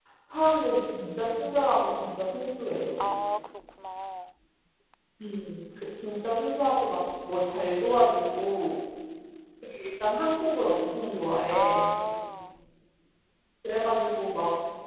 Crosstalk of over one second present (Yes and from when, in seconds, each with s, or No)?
No